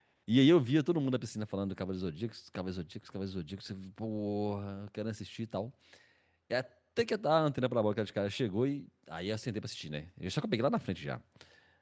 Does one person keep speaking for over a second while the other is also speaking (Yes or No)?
No